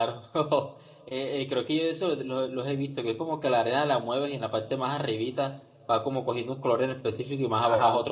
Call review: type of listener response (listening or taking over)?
taking over